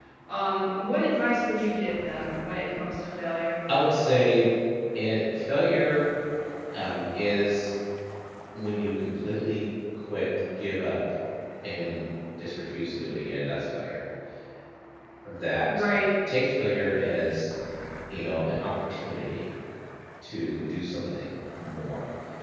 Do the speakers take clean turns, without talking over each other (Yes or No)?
Yes